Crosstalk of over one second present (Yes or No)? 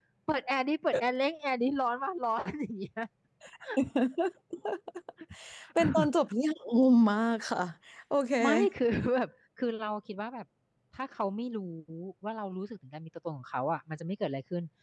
No